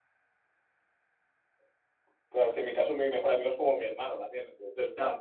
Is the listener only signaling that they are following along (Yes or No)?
No